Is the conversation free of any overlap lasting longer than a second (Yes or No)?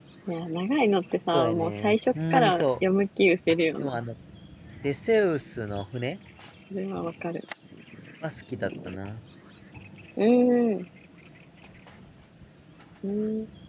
No